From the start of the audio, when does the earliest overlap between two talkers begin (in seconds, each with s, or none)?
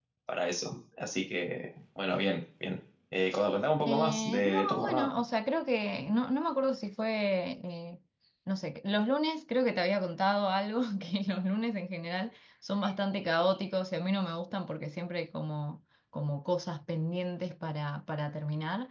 3.9 s